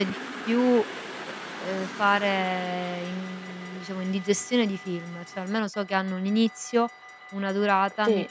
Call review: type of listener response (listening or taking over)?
listening